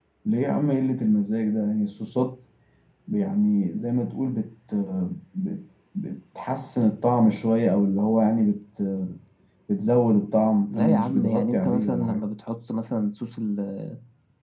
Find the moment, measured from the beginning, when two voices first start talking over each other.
10.7 s

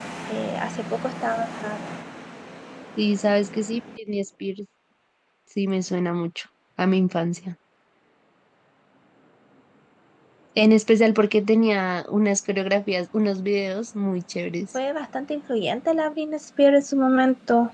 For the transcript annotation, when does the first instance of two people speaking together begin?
none

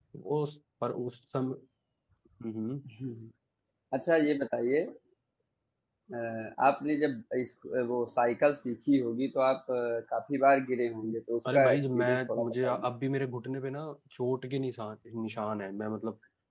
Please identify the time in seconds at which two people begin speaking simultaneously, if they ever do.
11.5 s

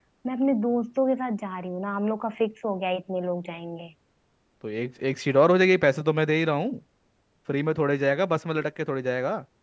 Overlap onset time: none

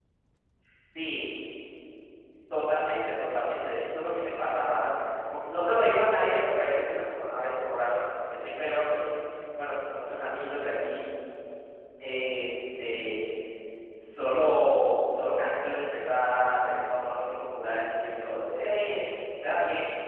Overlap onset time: none

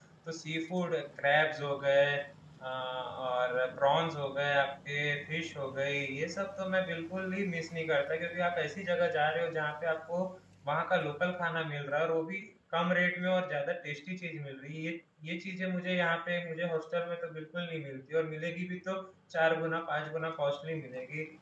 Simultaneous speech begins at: none

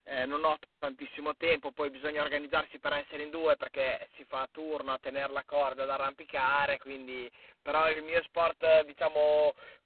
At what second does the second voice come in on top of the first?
none

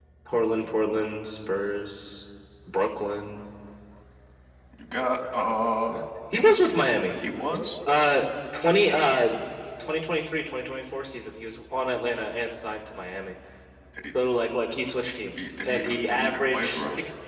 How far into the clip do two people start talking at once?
15.4 s

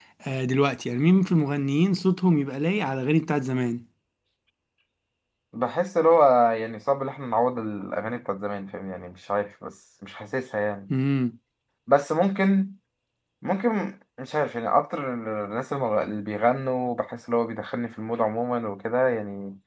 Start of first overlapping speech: none

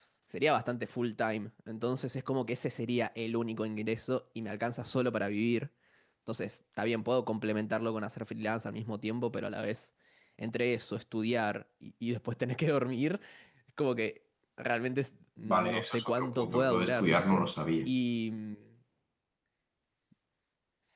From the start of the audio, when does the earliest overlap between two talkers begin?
15.4 s

